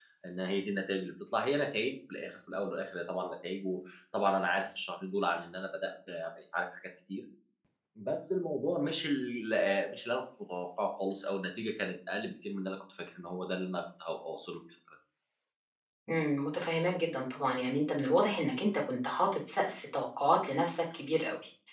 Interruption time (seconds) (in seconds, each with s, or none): none